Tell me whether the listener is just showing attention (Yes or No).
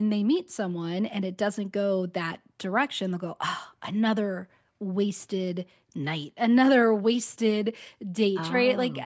Yes